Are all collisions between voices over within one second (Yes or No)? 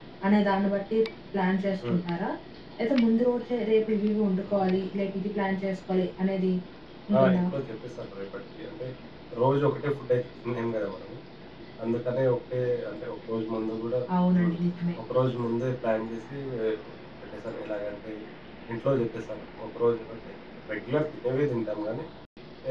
Yes